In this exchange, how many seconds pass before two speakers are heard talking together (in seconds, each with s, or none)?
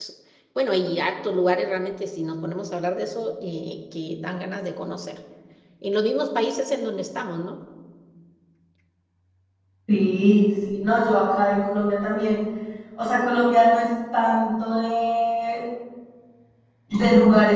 none